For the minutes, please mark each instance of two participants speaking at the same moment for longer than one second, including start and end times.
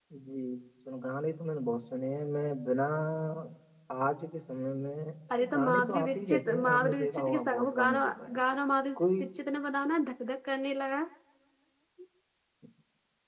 5.5-8.4

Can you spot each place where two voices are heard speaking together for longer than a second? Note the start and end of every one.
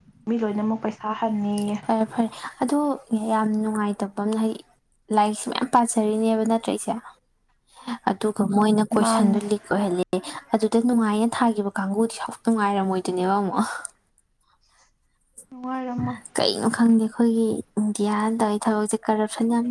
none

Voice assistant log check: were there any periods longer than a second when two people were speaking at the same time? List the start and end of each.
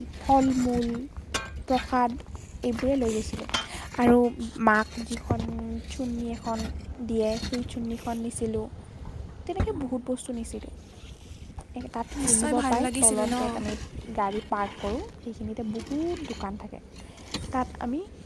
12.3-13.7

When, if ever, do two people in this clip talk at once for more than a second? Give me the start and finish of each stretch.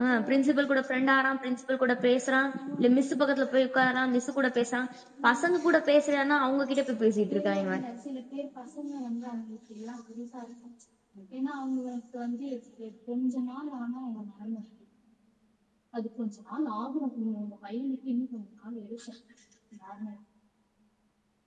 none

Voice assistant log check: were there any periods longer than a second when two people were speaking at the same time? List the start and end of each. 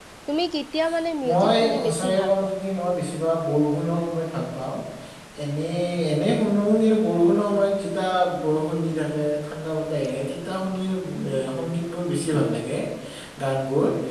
1.3-2.5

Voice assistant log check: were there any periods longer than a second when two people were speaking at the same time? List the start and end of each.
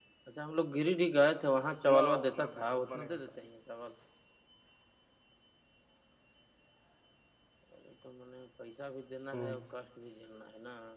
1.9-3.2

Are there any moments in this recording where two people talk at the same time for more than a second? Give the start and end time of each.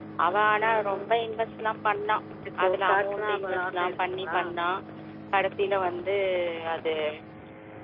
2.6-4.4

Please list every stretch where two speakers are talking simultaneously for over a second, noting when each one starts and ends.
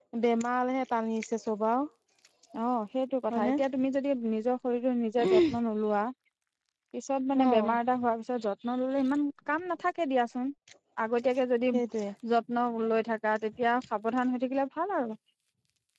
none

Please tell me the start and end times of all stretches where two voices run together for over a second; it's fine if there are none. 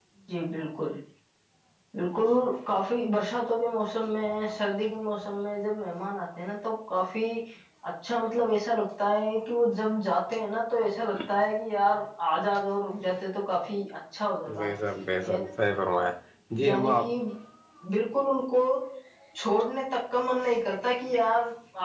none

